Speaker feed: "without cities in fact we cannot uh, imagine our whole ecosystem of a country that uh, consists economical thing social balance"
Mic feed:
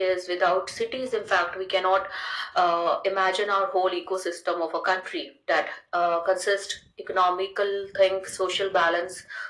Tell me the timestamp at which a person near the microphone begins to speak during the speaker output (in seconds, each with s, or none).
none